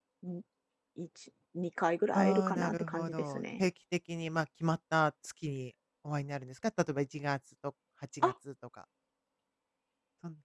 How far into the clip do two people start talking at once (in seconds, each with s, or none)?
2.1 s